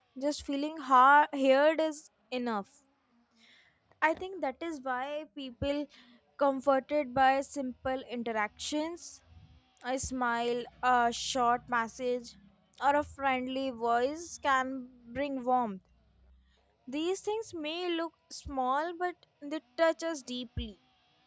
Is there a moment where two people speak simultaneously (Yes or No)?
No